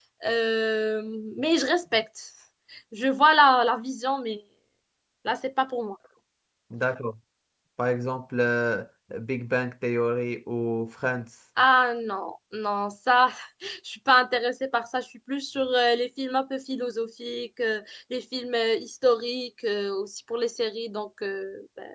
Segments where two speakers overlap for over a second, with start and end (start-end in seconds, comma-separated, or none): none